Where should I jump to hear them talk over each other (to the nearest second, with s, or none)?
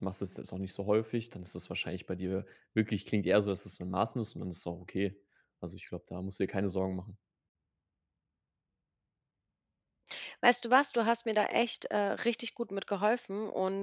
none